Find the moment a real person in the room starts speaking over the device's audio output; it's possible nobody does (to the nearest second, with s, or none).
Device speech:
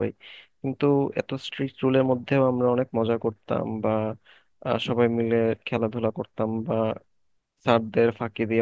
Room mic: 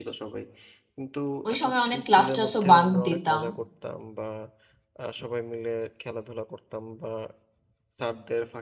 1 s